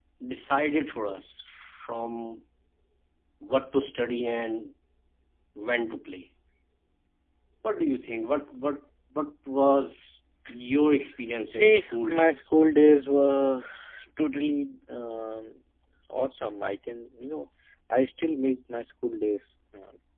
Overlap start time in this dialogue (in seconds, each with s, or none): 11.5 s